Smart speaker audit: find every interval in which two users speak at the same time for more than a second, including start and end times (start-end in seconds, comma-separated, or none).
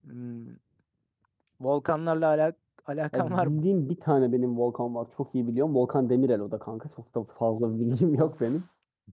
none